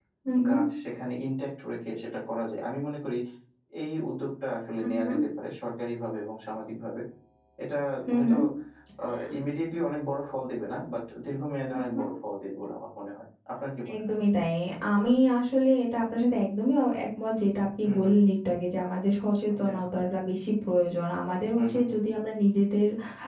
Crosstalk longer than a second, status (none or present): none